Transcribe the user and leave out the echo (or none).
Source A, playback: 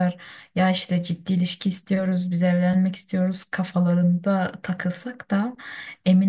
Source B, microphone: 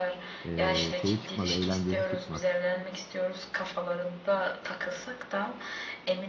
e, şeyi çıkmaz, eğlencesi çıkmaz.